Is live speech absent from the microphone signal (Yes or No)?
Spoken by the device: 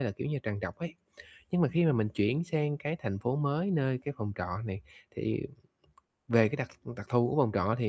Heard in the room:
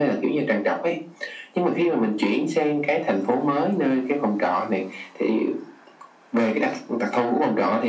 Yes